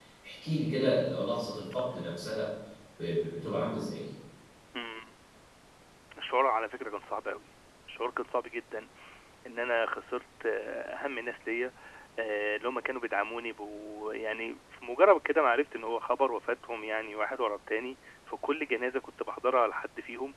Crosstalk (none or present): none